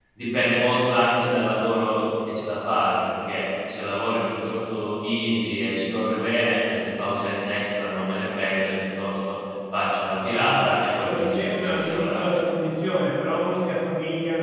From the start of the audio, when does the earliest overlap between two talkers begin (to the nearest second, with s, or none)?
10 s